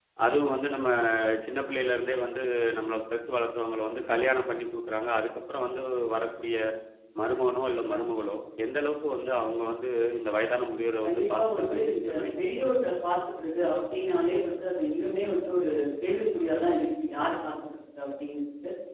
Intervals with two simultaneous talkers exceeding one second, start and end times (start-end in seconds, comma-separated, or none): 11.1-12.6